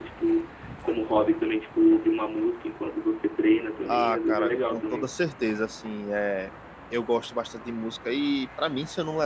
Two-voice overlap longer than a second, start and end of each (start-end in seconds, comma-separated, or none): 3.9-5.1